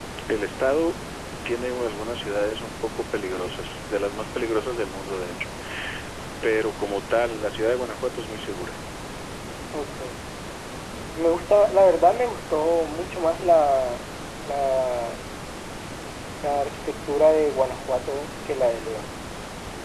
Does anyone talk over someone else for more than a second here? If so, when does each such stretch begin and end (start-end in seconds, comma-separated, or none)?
none